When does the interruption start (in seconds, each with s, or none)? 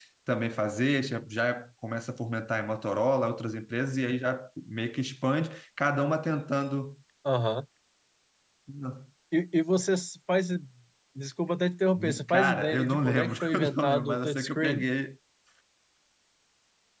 12.3 s